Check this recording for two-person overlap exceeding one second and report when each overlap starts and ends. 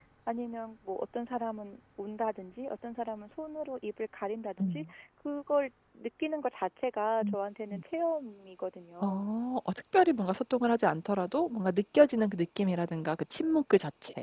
none

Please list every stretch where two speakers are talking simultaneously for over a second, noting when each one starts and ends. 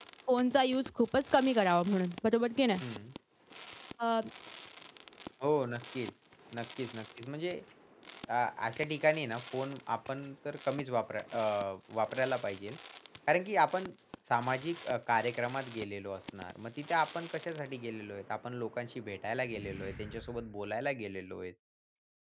none

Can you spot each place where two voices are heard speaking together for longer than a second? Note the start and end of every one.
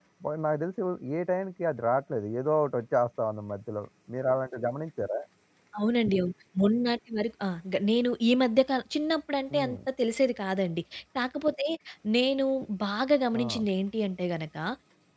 none

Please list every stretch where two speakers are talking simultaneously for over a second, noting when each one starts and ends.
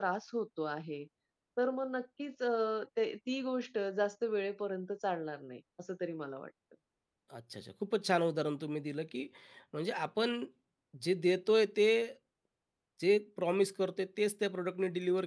none

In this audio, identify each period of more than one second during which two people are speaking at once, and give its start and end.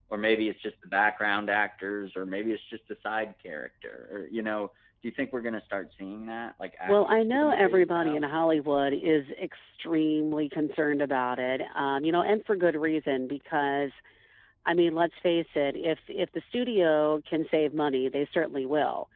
6.9-8.2

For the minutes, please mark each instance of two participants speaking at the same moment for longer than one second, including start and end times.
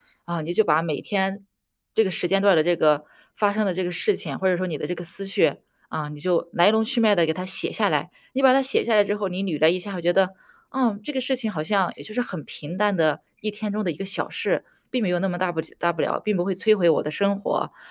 none

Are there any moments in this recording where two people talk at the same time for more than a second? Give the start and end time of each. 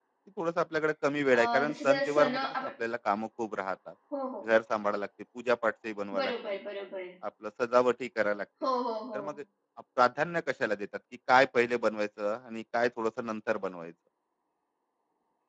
1.3-2.8

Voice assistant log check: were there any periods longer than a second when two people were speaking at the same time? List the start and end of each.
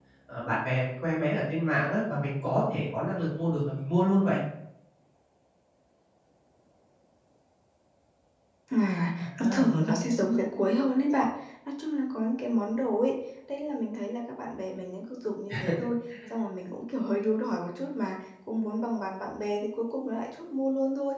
none

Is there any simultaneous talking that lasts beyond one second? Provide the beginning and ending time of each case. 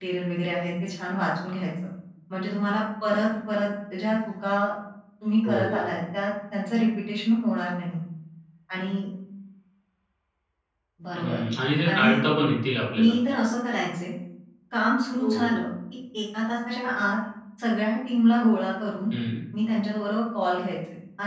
none

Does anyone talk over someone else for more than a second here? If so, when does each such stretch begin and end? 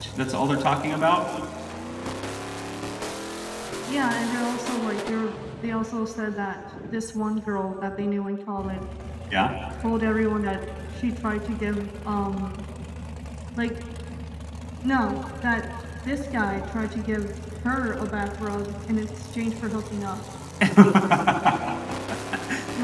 none

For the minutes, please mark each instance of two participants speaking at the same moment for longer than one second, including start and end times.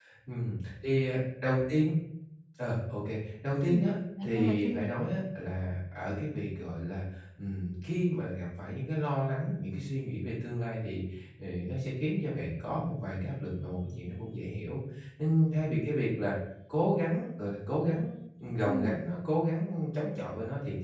3.7-4.9

